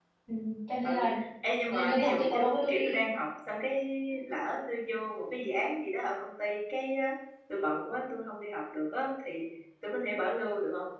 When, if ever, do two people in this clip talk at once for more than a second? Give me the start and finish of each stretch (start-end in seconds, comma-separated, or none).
1.7-3.0